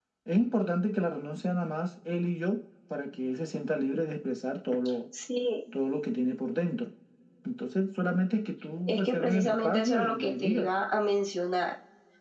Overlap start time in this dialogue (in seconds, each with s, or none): 8.9 s